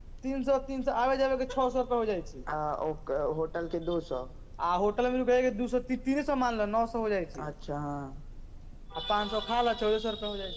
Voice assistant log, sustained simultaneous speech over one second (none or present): none